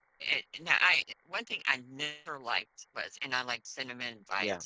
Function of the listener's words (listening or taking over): listening